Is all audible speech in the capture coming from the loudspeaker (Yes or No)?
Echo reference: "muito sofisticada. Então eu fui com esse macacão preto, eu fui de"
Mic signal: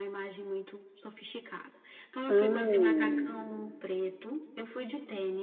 No